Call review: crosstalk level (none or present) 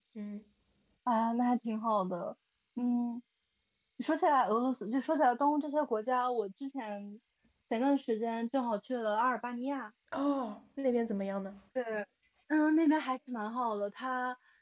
none